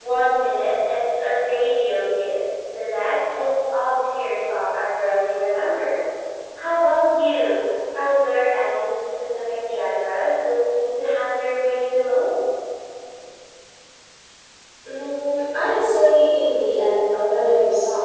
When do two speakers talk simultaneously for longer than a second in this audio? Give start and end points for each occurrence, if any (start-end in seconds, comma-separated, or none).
none